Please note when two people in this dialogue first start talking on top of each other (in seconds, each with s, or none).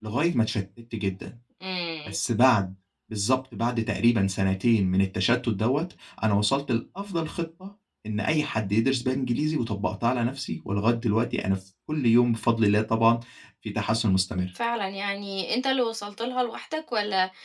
none